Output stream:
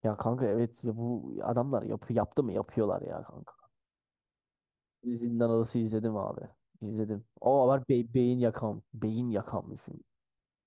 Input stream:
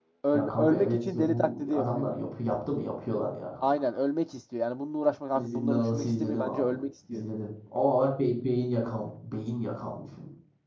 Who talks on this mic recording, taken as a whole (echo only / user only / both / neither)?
both